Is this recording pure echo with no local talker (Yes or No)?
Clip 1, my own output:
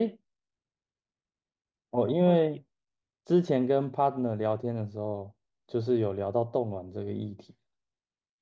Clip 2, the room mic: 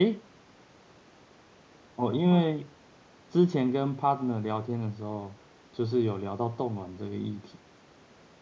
Yes